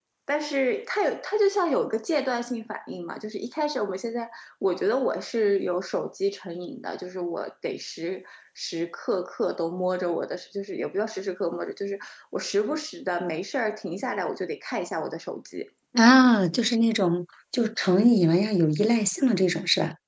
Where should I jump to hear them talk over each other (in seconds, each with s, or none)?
none